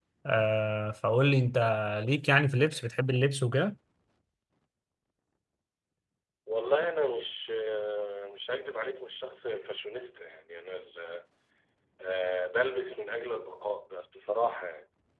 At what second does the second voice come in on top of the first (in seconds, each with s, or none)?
none